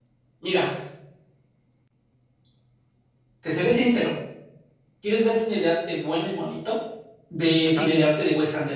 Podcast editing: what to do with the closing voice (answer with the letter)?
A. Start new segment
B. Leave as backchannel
B